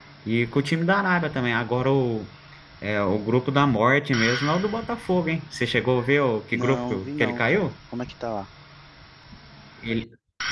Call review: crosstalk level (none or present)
present